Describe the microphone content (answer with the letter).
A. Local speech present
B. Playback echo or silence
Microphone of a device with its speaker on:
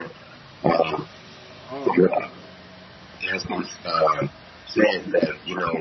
A